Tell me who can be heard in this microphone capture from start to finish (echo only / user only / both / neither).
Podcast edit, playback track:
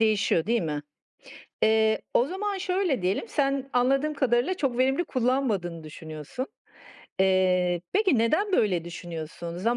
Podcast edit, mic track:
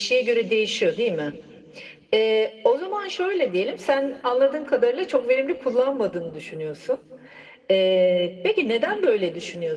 echo only